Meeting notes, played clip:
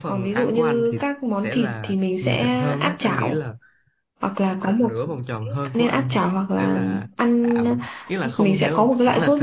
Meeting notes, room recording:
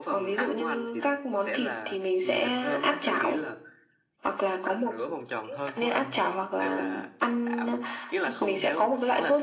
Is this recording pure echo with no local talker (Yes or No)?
Yes